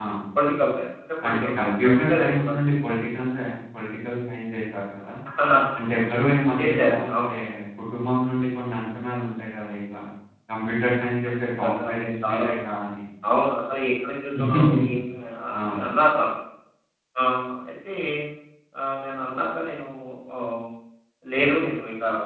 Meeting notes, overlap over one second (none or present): present